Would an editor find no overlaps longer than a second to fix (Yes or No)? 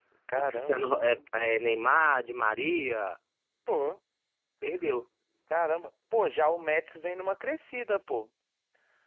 Yes